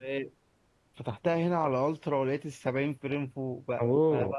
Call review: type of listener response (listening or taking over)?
listening